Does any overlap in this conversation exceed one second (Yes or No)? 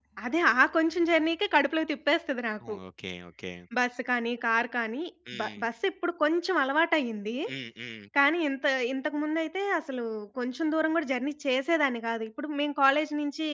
No